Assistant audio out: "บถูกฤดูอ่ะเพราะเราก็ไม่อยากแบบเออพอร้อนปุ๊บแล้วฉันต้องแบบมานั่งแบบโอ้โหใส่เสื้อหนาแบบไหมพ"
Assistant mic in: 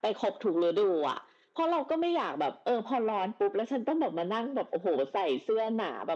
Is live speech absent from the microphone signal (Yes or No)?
Yes